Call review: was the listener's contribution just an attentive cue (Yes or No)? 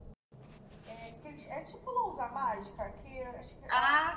Yes